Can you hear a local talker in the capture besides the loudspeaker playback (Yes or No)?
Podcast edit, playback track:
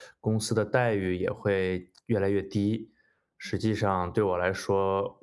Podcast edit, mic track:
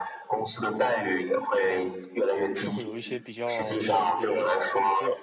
Yes